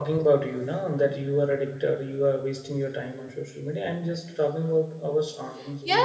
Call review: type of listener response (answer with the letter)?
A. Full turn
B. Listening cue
A